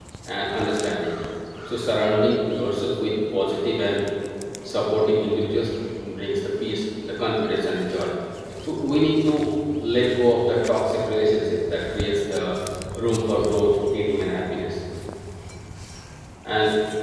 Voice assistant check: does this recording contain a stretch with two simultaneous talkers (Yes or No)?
No